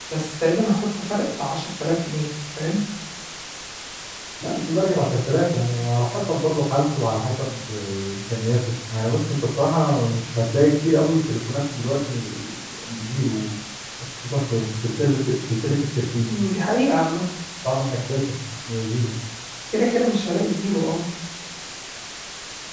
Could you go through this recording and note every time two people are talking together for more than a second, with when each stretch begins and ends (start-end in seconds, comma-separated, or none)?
none